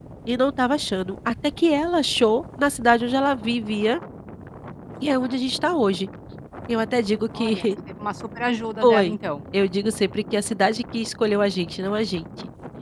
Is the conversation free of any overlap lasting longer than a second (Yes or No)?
Yes